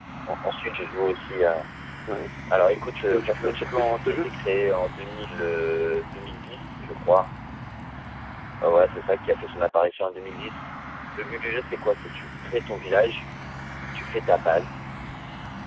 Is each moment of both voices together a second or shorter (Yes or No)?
No